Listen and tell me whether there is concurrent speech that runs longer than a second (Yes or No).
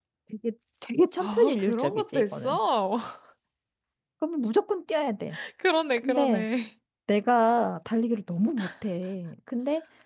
Yes